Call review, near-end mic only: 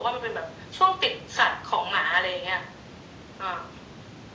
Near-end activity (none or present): none